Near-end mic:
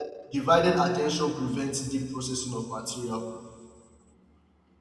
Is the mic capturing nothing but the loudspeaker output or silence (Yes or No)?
No